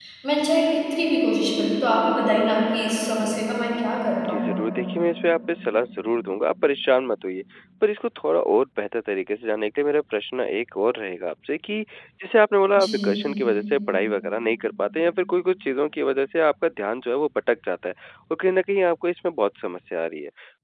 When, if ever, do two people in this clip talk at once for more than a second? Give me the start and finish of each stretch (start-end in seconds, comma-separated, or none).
none